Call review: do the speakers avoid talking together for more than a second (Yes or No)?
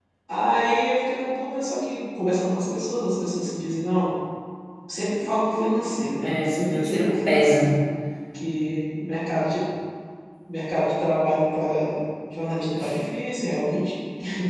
No